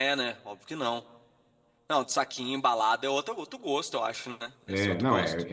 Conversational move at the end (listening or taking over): taking over